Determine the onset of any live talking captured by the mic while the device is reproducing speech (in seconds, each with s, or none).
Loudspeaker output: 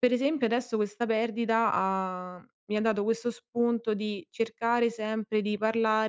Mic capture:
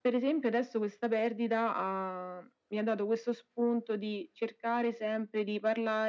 none